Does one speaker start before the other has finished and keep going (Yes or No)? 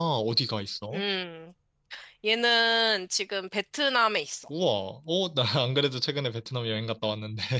No